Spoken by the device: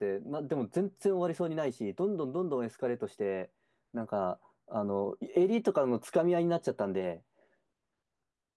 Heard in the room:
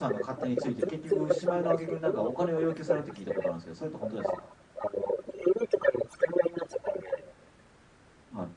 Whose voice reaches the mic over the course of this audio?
both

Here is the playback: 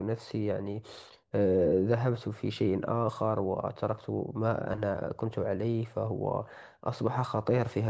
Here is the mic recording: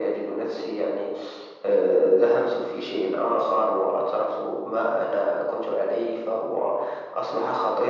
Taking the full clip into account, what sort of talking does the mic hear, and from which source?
echo only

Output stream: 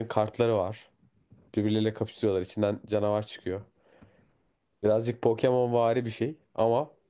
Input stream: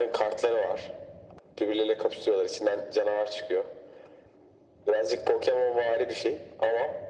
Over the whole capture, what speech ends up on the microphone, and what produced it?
echo only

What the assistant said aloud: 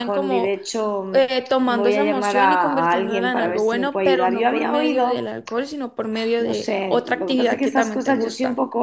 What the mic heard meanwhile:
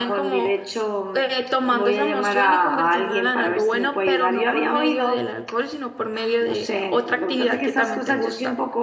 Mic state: echo only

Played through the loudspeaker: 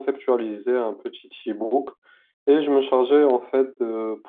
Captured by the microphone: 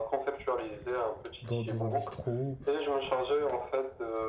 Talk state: both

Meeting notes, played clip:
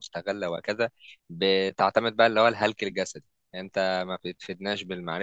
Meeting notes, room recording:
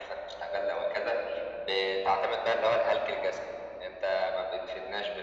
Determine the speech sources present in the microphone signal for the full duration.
echo only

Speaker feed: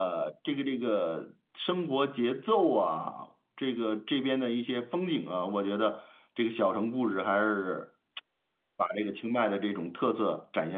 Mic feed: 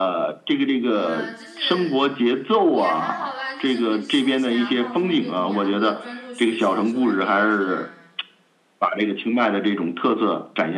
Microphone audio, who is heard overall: both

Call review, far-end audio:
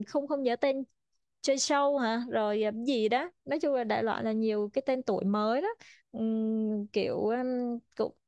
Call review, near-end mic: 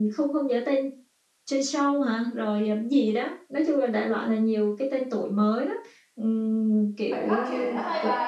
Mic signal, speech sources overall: both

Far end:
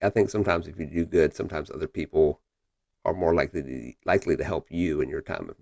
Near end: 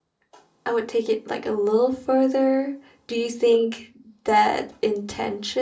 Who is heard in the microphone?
user only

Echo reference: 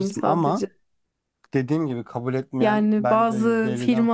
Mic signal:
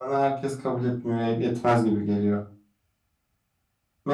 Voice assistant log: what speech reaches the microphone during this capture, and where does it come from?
user only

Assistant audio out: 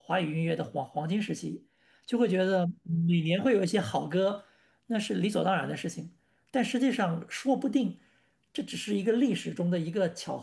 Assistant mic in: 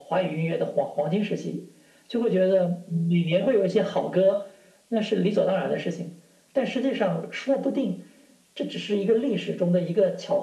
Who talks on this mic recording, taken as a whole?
echo only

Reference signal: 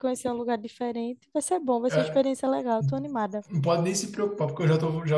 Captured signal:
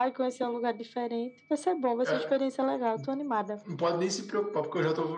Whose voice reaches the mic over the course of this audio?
echo only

